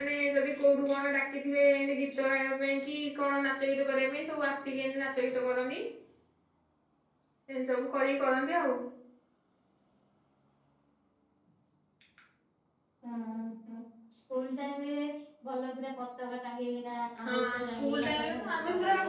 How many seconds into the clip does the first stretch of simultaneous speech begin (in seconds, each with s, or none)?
17.2 s